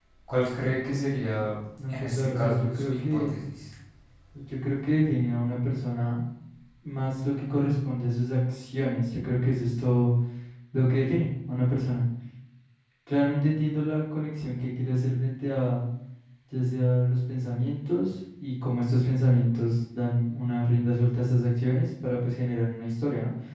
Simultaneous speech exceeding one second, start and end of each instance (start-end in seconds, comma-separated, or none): 1.9-3.3